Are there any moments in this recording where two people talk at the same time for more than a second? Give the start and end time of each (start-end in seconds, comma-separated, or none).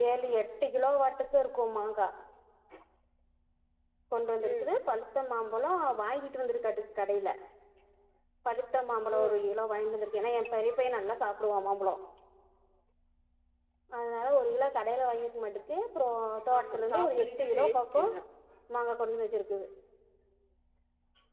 16.6-18.0